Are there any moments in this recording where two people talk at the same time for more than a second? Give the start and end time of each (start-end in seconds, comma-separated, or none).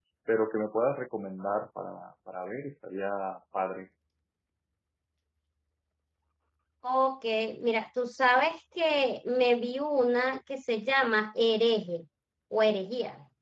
none